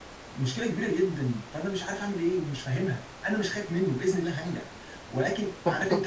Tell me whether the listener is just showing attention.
No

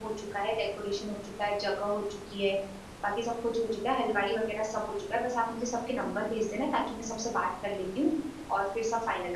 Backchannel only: No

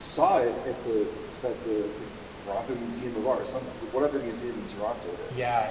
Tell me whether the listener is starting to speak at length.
Yes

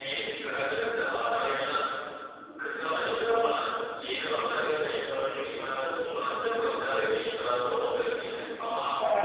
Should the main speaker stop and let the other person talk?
Yes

